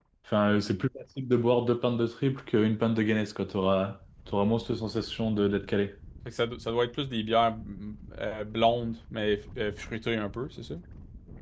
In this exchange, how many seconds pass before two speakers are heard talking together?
none

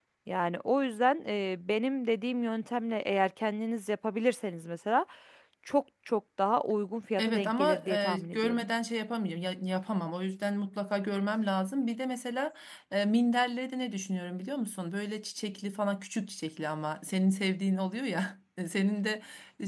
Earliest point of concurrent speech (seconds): 7.2 s

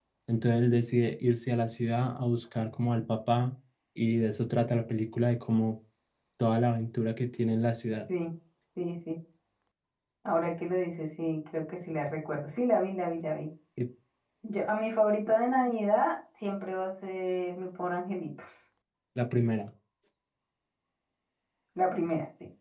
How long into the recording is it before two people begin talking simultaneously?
none

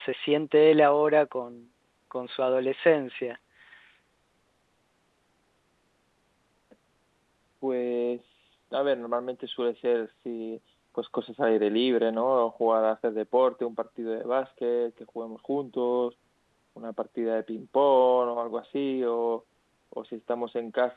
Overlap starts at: none

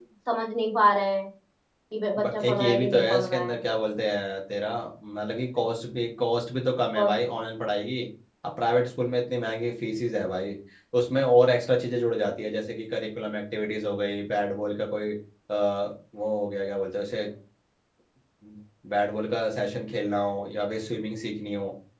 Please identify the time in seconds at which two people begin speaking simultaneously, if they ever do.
2.2 s

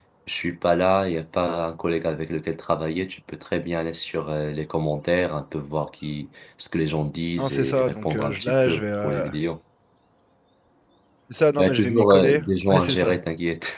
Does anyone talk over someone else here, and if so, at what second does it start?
7.4 s

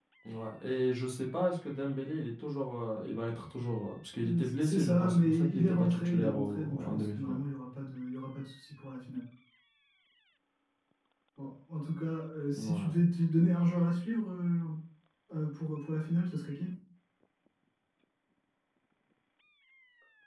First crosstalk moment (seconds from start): 4.2 s

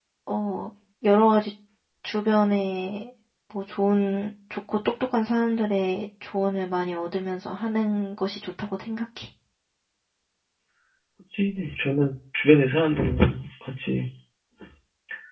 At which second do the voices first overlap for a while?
none

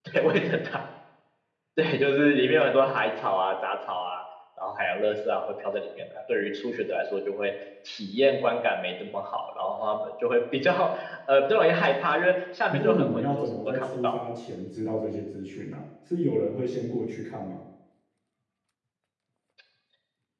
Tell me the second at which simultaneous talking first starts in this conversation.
12.7 s

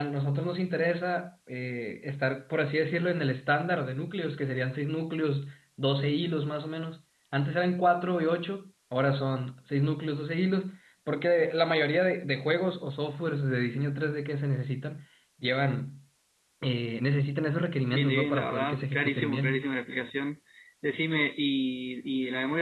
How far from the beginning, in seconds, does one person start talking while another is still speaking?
17.9 s

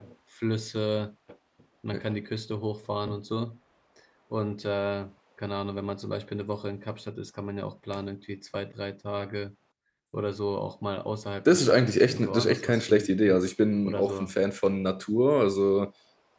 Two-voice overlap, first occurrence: 11.4 s

